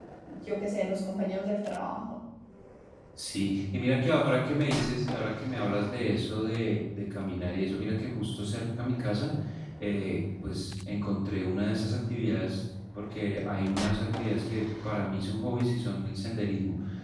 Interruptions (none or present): none